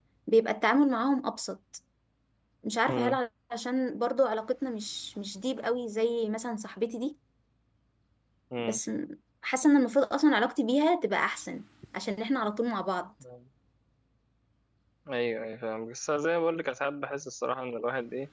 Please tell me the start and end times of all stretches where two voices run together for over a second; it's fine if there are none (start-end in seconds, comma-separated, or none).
none